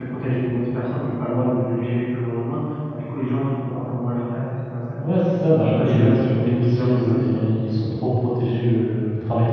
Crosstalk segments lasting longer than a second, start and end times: 5.6-7.4

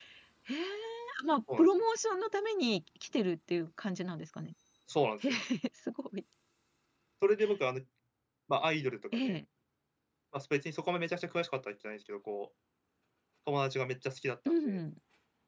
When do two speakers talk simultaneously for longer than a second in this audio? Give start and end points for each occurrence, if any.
none

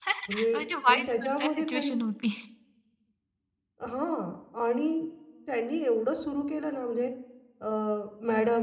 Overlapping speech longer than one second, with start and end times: 0.5-1.9

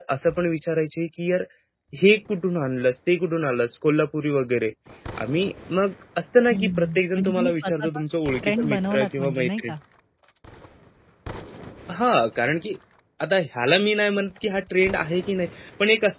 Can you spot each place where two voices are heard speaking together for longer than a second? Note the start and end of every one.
6.5-7.9, 8.4-9.7

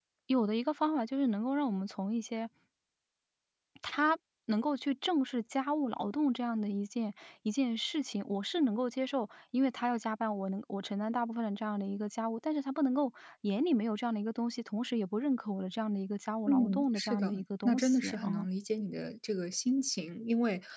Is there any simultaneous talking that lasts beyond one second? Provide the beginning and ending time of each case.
16.5-18.5

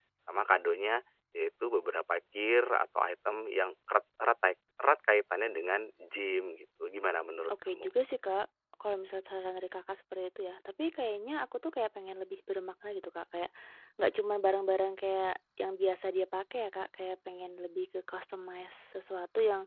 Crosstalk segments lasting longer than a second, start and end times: none

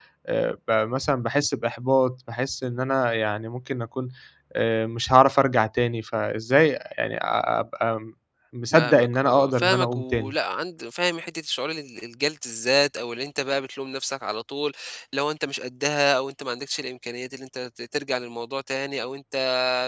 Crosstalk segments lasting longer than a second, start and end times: 8.7-10.3

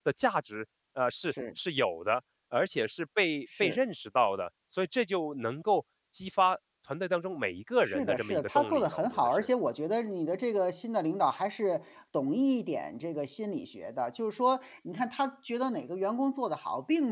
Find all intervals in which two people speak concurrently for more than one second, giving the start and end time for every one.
7.8-9.5

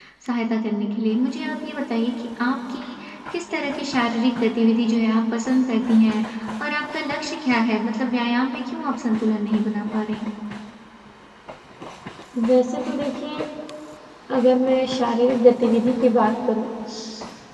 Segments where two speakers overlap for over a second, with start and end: none

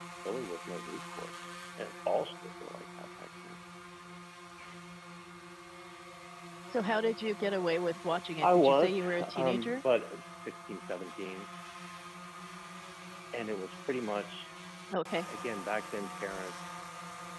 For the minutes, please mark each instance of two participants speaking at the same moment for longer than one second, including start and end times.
8.4-9.8

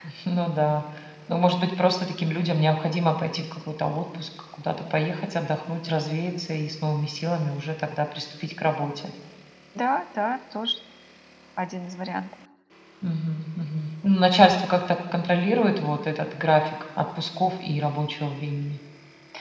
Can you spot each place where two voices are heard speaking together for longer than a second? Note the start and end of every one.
none

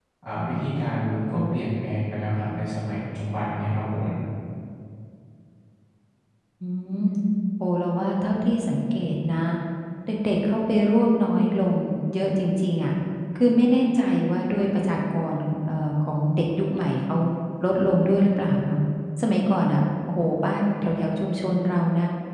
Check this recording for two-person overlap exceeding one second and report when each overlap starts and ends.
none

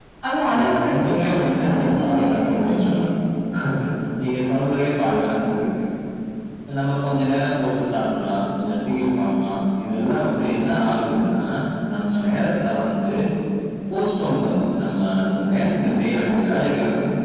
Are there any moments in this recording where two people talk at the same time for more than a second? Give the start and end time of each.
0.6-3.0

